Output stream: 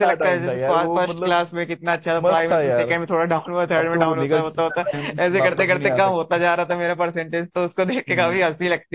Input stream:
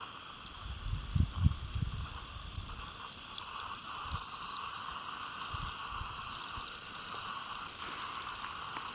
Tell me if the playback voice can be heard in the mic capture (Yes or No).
No